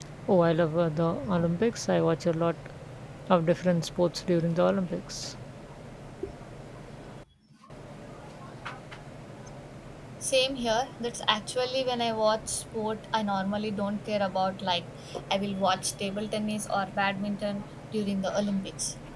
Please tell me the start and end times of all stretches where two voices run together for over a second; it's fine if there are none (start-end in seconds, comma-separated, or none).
none